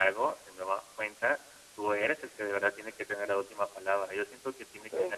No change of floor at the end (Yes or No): Yes